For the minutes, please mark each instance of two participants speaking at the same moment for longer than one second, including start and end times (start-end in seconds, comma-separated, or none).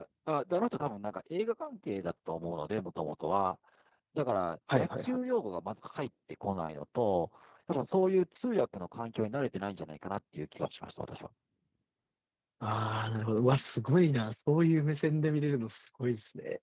none